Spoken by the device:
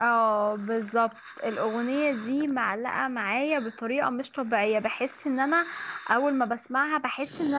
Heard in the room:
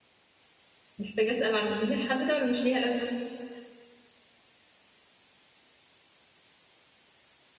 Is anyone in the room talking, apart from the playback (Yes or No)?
Yes